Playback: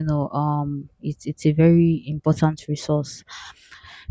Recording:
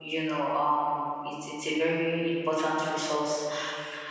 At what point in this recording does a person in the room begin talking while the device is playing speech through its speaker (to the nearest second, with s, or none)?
none